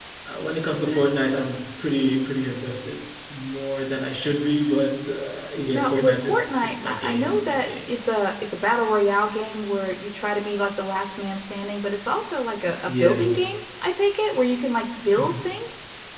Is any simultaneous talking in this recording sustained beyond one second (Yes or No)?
Yes